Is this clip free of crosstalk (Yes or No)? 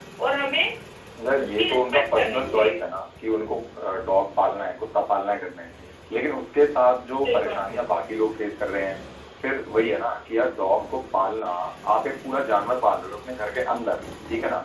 No